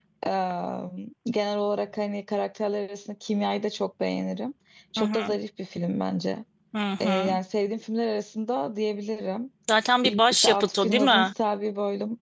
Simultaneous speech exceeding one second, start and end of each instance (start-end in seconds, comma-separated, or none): 10.0-11.3